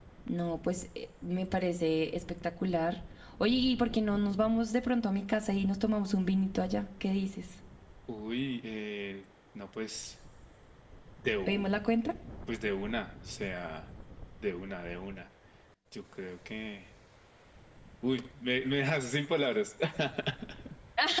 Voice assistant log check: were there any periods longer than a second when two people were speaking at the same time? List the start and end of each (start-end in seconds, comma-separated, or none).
none